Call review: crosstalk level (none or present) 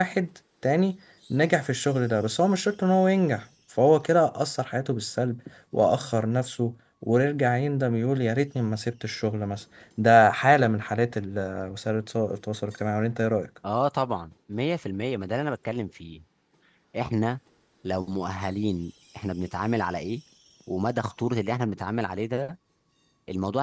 none